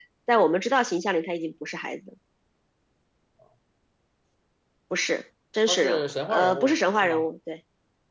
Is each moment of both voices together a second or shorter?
No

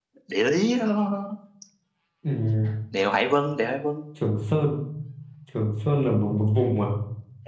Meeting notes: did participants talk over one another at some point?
No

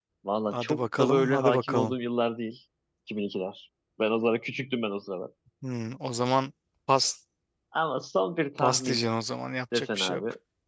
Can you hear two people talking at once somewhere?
Yes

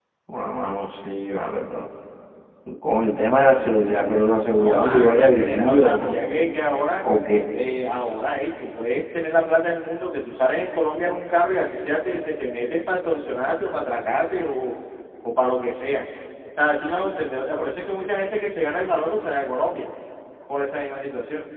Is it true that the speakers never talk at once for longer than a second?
No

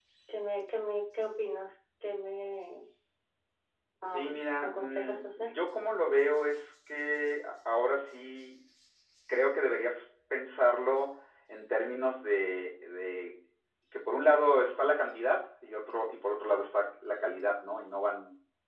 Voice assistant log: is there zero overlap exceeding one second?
No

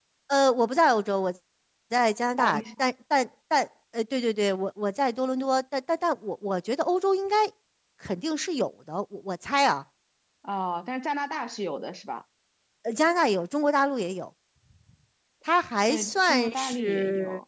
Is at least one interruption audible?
Yes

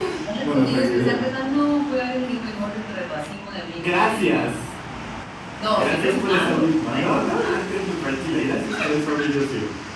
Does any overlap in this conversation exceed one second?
Yes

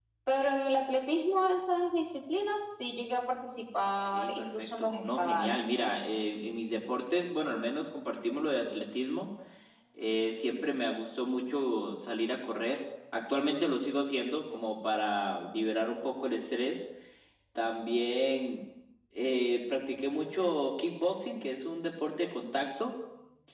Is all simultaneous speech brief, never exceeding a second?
No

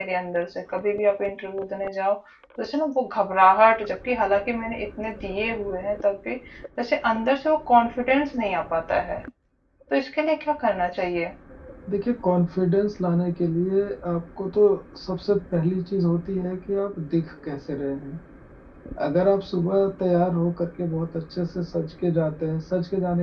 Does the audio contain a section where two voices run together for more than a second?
No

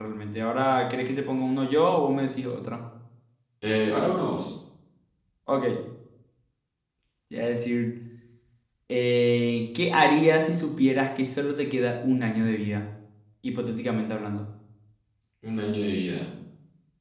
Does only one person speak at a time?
Yes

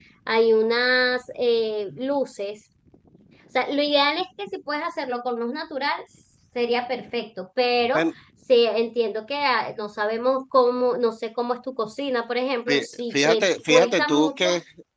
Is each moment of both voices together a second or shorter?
No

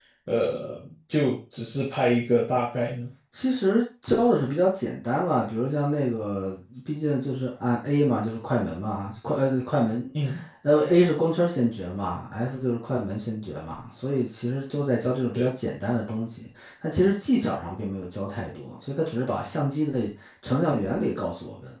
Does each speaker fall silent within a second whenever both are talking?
Yes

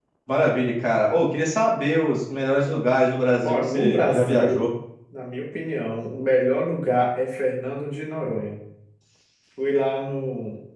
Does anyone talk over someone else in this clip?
Yes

